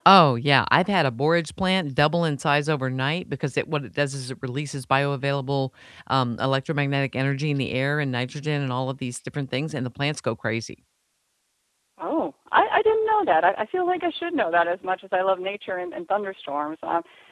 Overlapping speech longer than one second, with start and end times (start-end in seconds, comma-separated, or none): none